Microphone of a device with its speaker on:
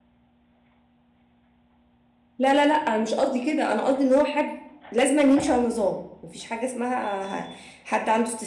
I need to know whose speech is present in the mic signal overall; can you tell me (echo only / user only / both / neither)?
user only